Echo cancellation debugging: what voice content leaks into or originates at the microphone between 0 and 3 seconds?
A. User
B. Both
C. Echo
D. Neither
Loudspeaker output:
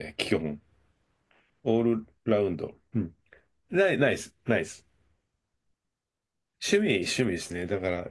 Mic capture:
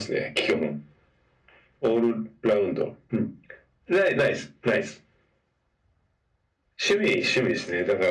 C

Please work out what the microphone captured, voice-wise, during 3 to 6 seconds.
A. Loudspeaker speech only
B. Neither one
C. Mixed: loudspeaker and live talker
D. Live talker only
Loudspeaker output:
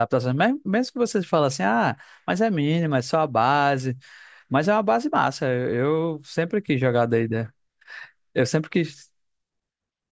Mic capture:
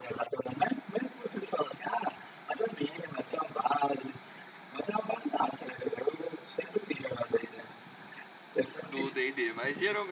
A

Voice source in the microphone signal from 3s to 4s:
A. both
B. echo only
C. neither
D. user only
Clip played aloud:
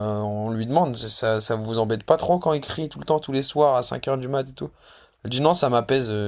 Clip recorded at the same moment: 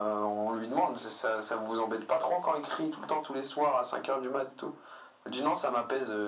B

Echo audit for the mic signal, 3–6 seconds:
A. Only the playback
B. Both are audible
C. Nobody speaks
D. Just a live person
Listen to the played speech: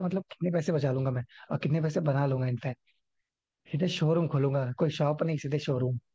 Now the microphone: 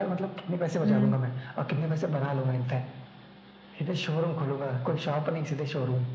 A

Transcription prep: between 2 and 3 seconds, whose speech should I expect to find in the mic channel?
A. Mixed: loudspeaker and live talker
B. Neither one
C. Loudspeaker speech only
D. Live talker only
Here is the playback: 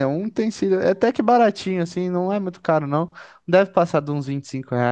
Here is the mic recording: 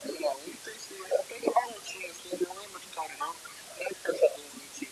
C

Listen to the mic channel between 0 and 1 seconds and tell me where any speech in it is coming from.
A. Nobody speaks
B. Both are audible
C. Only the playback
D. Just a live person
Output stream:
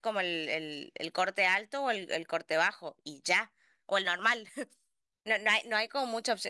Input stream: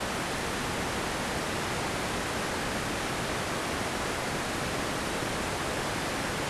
A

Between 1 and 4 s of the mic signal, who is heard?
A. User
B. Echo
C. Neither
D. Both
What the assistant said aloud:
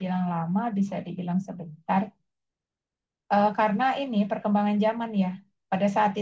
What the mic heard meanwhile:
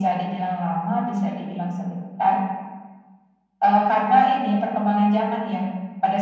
B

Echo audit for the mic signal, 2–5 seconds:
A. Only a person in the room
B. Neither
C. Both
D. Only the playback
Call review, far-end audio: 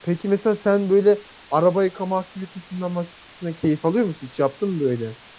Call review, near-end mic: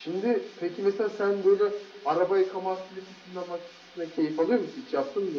D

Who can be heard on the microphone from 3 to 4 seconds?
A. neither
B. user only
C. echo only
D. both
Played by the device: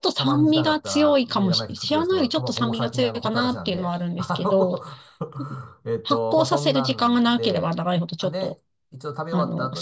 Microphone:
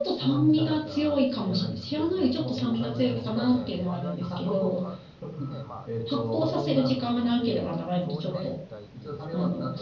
D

